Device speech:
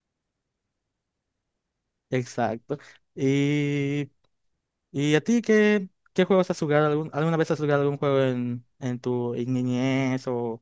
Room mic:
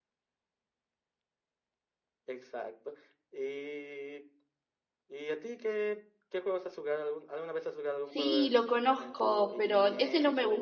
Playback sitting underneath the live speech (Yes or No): Yes